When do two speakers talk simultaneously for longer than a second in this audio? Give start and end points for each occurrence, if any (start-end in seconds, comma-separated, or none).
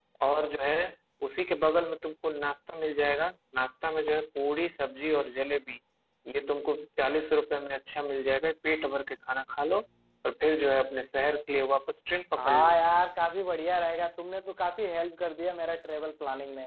none